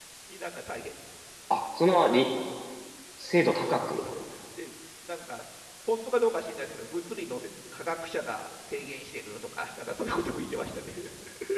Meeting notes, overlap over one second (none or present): none